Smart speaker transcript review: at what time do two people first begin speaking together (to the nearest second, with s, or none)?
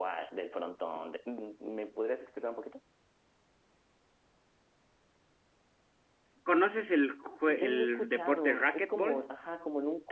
7 s